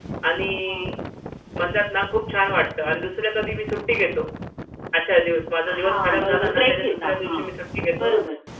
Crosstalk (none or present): present